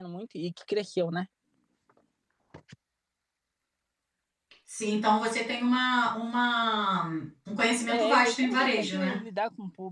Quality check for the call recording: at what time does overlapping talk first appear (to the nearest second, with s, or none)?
8 s